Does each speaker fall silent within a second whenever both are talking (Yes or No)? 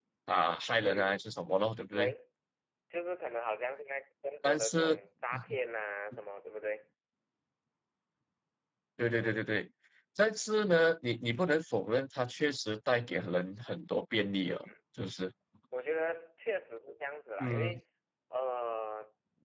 Yes